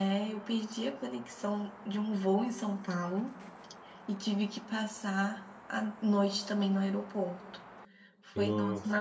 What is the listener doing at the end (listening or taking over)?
listening